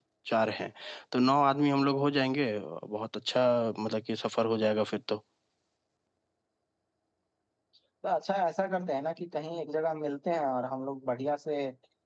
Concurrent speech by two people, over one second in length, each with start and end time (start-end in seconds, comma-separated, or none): none